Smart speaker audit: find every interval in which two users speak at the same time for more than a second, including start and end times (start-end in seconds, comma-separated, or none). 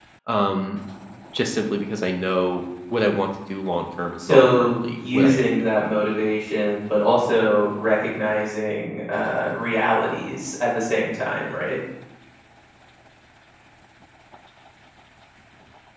4.2-5.5